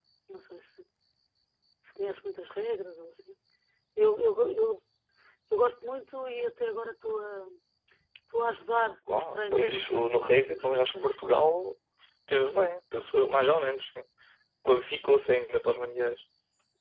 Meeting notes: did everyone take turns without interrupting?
No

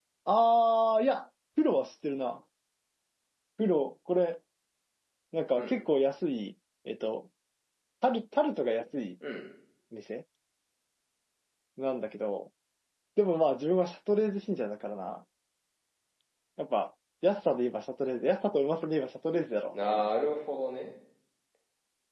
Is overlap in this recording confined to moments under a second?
Yes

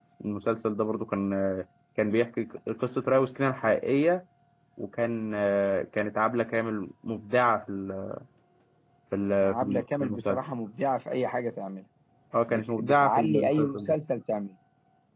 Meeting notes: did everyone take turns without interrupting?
No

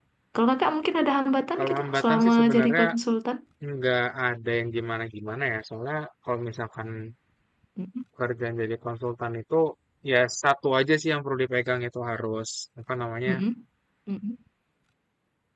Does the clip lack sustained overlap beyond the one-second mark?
No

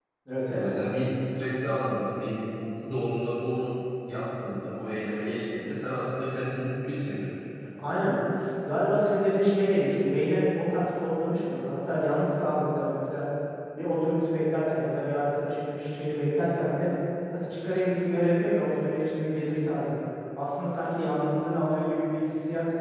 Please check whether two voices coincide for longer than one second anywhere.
No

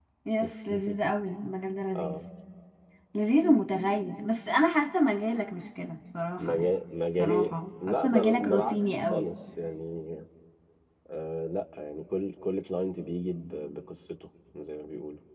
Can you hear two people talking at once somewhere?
Yes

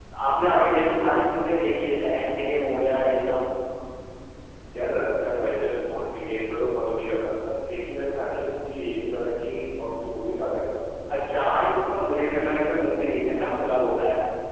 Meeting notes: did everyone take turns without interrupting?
Yes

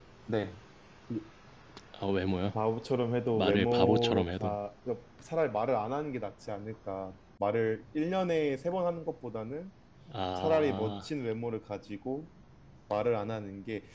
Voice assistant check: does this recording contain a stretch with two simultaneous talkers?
Yes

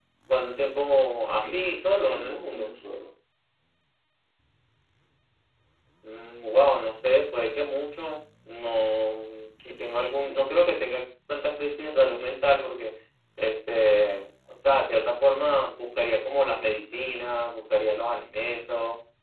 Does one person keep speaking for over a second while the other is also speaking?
Yes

